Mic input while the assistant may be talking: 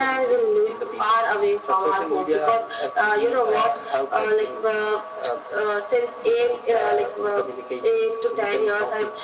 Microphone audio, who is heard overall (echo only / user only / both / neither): echo only